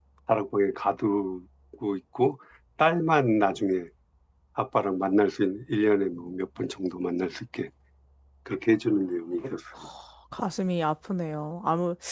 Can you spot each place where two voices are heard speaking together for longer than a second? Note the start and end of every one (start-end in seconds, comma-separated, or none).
none